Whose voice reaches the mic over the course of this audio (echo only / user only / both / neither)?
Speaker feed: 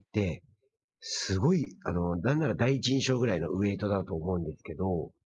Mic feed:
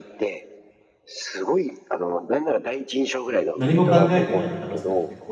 both